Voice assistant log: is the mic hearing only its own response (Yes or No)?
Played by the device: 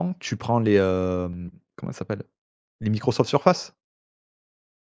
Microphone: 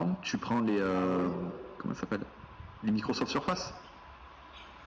No